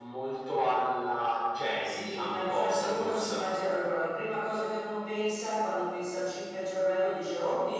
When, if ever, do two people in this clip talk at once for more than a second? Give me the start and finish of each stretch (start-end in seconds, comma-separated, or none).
1.9-3.3